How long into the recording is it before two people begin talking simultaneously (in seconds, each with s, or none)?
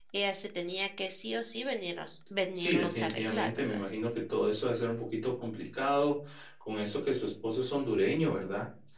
2.5 s